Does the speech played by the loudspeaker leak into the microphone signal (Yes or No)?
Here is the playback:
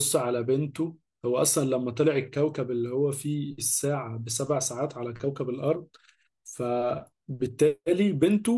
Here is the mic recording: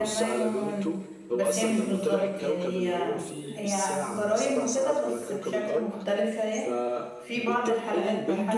Yes